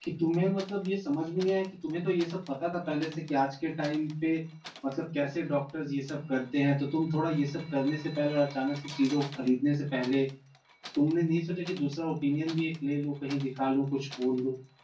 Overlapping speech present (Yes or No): No